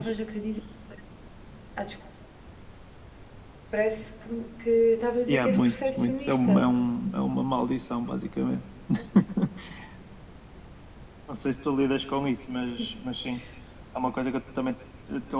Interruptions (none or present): present